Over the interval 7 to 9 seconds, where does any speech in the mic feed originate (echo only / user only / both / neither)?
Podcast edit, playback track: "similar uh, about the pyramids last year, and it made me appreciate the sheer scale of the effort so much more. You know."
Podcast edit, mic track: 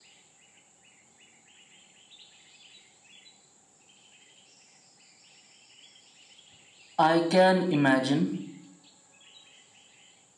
user only